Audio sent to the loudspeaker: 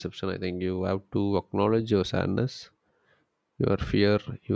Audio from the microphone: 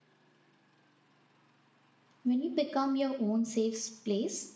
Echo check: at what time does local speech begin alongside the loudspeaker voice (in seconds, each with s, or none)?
2.2 s